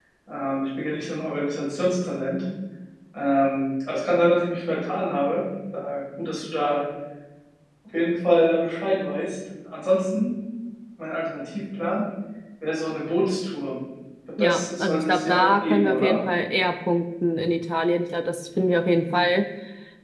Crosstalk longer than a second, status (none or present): present